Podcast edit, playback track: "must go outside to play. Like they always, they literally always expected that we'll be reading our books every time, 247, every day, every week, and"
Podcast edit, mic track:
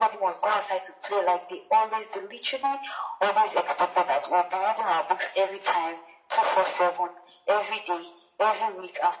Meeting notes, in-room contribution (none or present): none